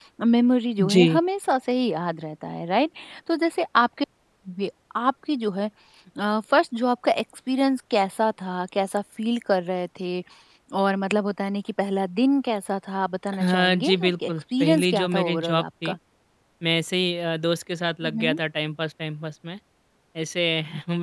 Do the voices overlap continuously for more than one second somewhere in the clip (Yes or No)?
Yes